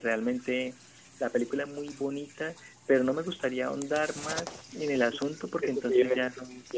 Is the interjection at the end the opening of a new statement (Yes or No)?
Yes